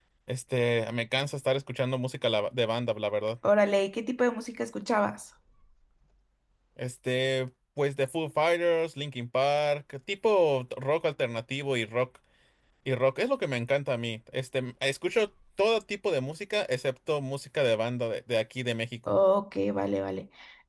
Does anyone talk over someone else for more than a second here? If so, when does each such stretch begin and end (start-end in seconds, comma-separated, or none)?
none